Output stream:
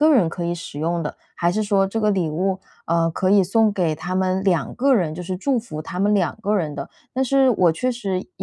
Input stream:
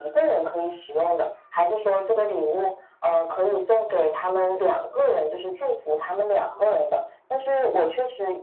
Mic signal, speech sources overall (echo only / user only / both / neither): both